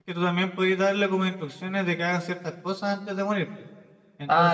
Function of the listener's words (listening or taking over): taking over